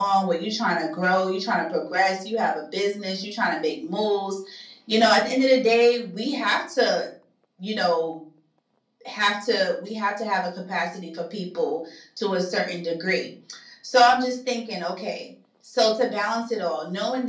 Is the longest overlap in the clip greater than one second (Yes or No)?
No